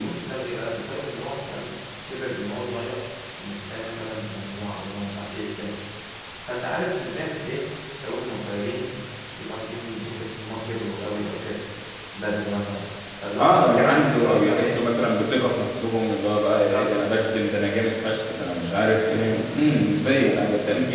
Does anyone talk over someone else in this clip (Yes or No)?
Yes